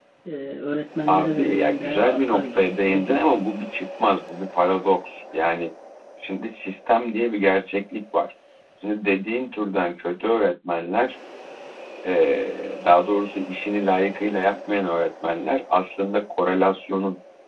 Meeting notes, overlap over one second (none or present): present